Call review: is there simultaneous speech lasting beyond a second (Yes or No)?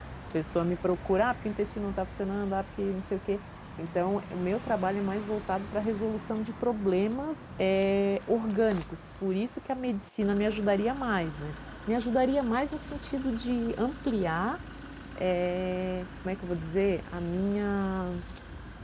No